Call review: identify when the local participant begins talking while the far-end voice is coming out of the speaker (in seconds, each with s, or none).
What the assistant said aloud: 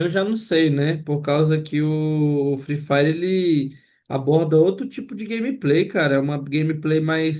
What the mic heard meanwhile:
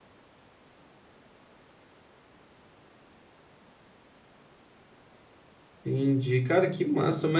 5.8 s